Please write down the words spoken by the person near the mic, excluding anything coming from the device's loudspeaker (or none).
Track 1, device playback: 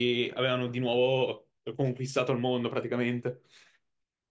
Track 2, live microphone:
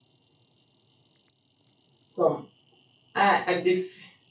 insomma, eh, è difficile.